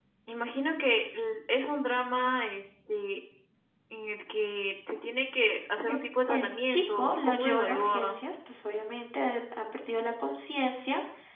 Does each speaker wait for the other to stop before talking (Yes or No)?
No